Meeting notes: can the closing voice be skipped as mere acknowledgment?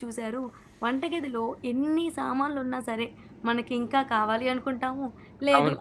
Yes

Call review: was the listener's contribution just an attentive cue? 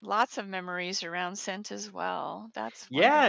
No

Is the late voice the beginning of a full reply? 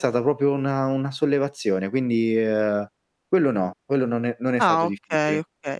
Yes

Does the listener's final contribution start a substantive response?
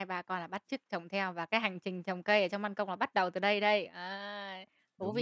Yes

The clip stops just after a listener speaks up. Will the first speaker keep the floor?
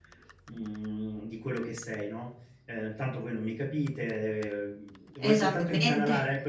Yes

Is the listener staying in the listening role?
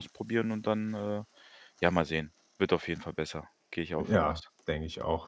No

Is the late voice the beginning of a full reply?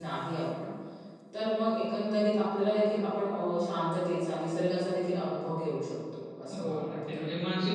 Yes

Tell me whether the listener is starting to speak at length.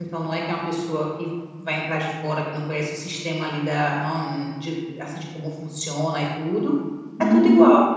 Yes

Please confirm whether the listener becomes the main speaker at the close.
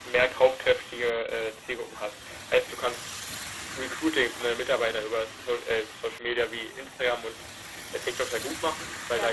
No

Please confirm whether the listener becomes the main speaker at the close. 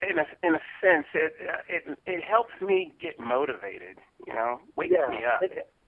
Yes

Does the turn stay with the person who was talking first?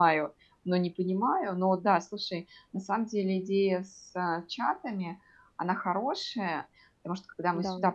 Yes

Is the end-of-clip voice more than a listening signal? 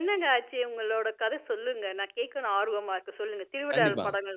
Yes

